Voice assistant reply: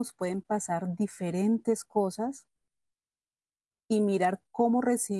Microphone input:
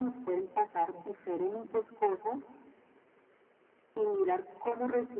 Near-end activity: none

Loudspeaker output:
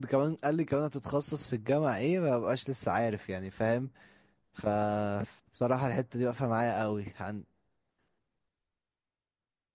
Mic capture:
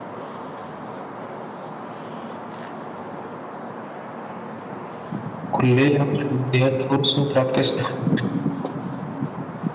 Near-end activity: present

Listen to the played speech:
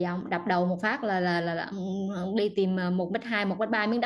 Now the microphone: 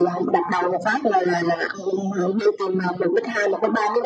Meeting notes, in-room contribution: none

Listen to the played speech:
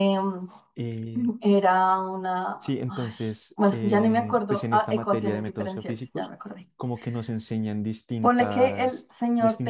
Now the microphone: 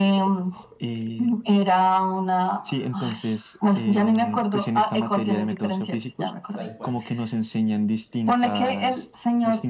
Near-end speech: present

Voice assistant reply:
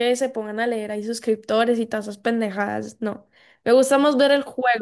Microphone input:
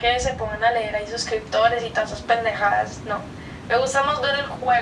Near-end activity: none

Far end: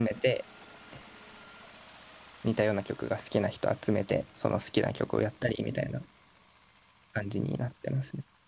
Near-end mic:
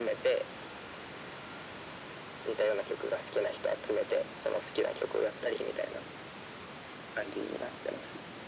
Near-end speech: none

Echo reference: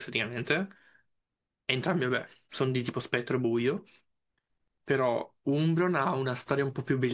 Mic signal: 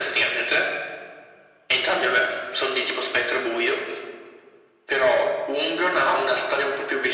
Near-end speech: none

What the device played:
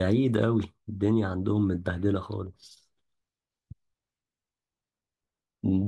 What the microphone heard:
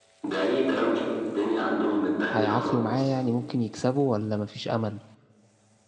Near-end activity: present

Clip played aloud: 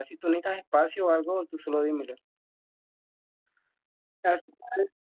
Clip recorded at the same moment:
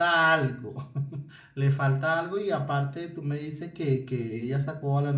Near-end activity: present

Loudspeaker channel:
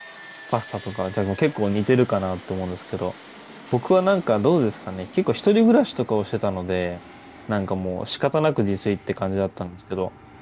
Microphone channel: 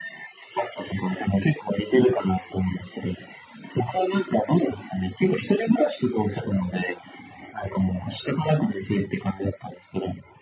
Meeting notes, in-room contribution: none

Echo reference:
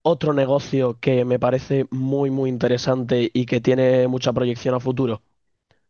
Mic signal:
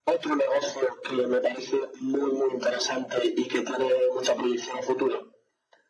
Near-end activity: none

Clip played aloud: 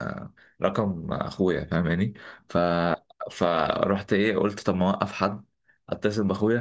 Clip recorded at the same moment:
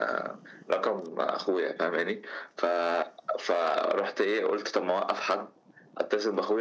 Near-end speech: none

